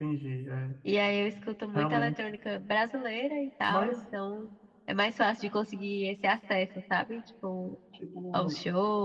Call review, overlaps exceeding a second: none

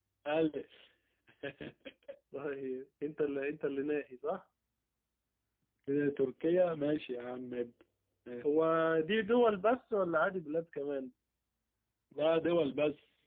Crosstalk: none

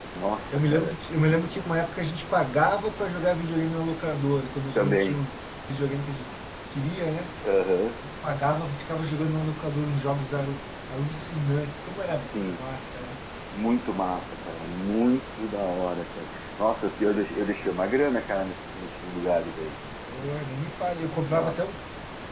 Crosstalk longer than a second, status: none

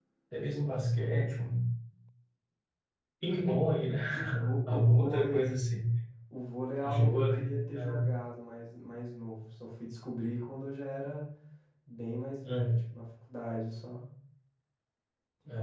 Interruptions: present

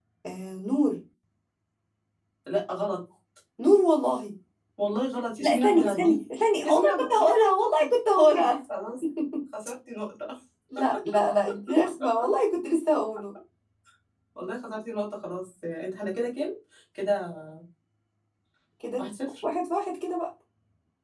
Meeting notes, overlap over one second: present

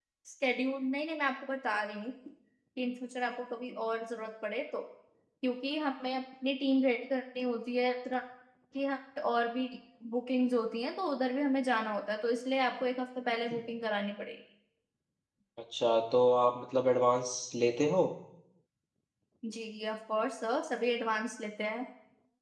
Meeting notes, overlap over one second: none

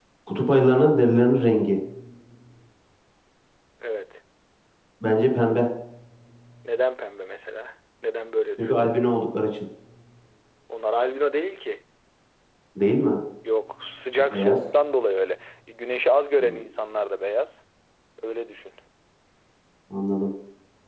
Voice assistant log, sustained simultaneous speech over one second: none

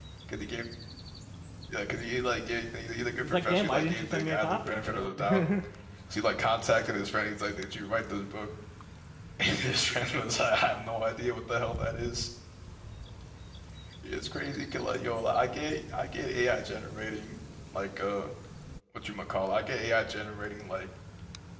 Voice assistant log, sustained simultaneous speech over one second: present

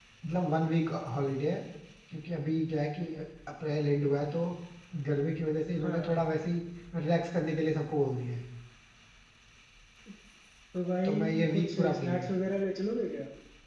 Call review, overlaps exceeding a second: present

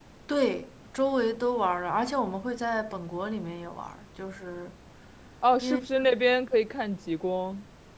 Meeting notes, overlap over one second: none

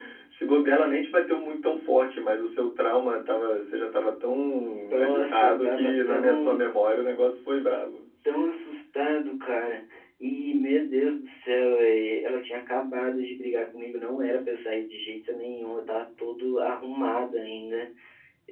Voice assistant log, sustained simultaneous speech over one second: present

